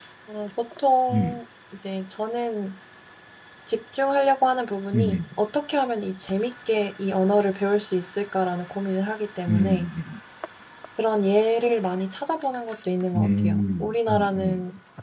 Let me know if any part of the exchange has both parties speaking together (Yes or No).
Yes